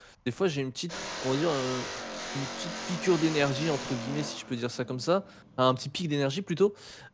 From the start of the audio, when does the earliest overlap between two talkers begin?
none

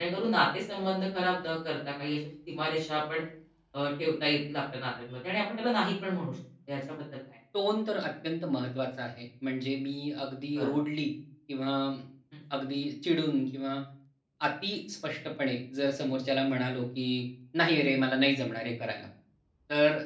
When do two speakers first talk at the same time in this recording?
none

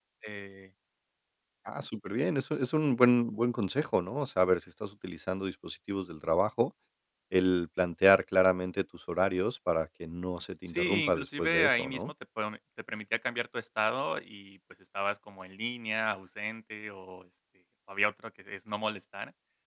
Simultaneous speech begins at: 10.7 s

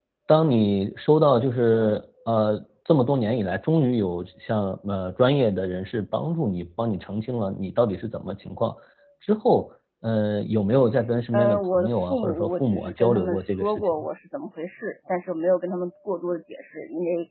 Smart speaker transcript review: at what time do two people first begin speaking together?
11.3 s

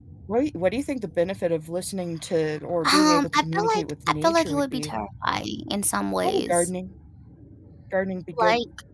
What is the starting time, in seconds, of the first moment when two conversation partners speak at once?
2.8 s

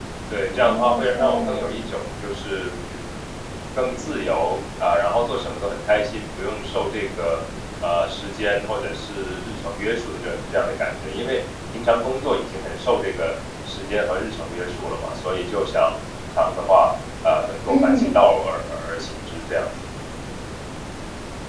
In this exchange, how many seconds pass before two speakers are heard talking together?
0.5 s

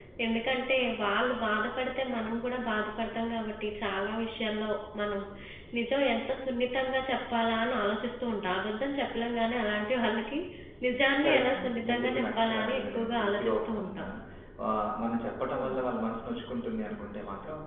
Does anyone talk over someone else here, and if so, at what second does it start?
11.2 s

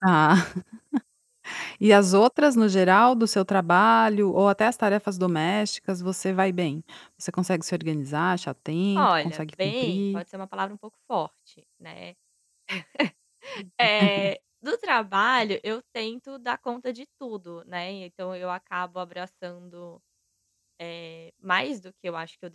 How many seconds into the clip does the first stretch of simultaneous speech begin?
9.0 s

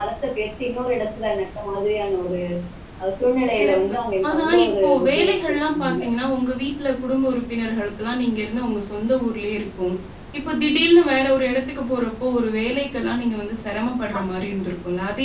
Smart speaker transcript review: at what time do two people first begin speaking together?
3.6 s

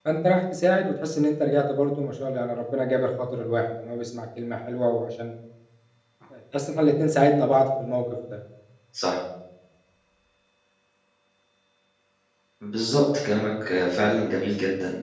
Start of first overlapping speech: none

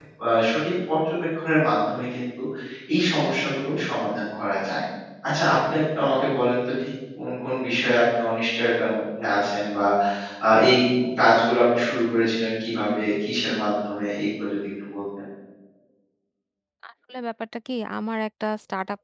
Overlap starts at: none

